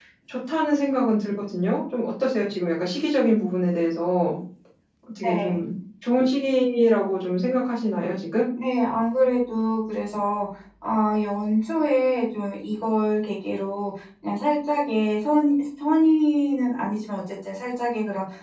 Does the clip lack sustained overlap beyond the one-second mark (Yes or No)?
Yes